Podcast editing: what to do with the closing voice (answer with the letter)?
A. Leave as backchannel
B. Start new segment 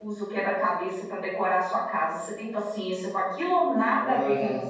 B